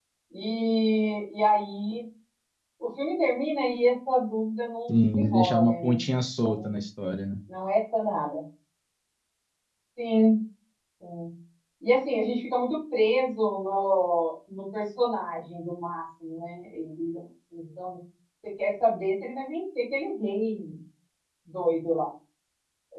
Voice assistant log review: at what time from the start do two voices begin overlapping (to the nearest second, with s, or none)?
5 s